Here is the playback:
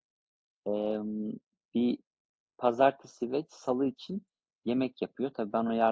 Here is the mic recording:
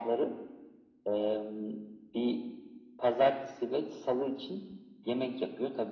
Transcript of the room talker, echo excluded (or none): none